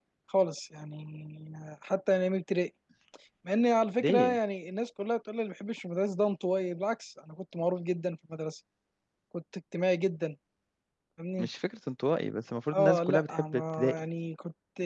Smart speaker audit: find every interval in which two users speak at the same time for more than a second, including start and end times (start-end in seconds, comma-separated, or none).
12.7-14.0